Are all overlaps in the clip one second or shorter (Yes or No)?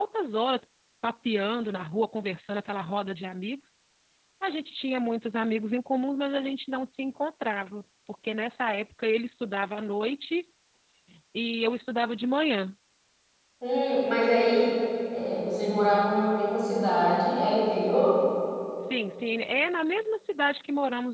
Yes